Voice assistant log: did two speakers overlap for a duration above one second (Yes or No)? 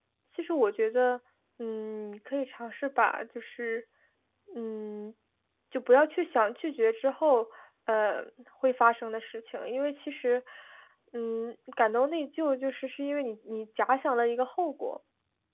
No